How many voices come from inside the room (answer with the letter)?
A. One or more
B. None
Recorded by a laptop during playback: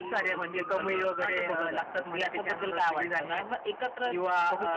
B